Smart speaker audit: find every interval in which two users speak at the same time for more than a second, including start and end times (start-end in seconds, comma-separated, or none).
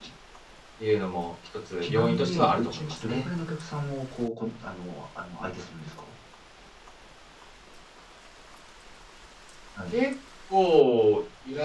1.8-3.2